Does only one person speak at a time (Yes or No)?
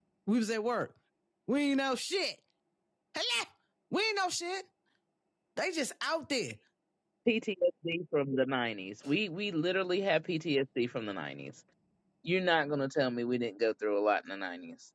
Yes